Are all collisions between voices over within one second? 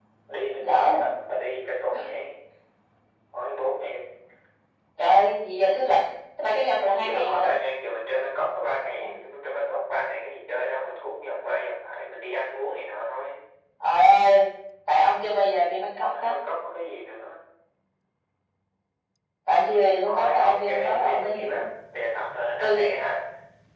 No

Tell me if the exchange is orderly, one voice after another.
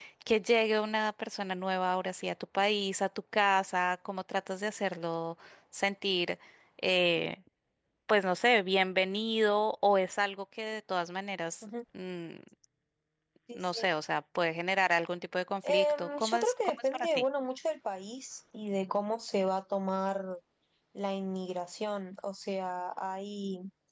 No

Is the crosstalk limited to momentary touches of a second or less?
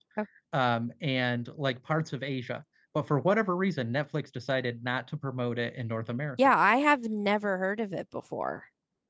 Yes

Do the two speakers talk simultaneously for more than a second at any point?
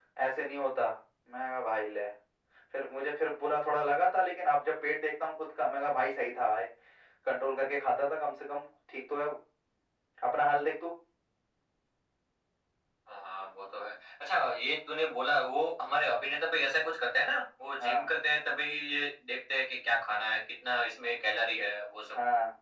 No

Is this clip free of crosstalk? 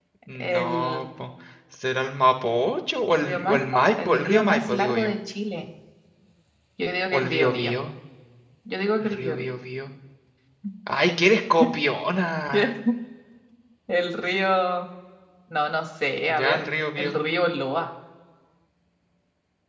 No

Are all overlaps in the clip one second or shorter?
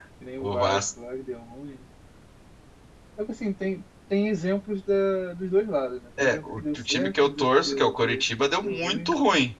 No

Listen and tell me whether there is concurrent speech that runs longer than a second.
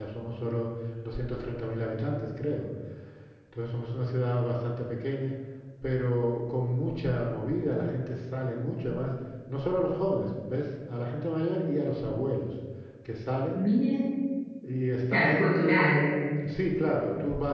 No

